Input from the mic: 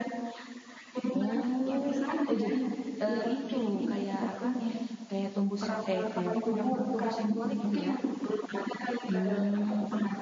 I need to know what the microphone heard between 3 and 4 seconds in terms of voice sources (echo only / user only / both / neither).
both